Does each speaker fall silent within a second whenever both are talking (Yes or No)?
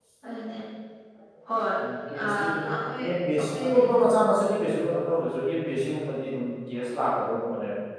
No